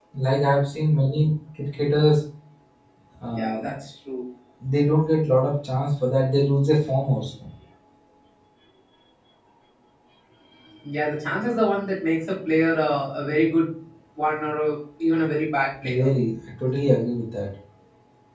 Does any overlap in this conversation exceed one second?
No

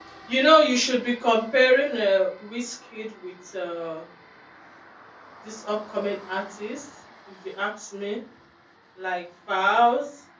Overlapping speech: No

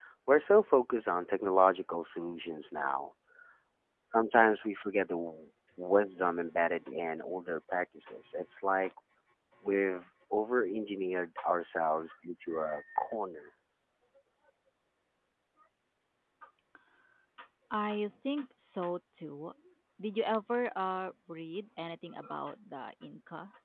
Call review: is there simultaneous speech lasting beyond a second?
No

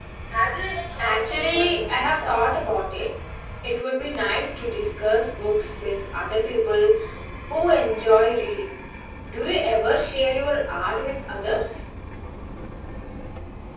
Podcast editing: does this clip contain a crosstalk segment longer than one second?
Yes, from 1.0 s

